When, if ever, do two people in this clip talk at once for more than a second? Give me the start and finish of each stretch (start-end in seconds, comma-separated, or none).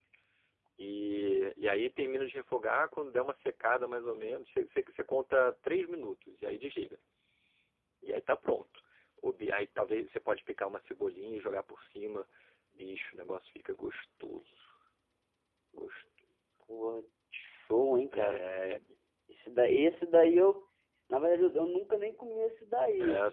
none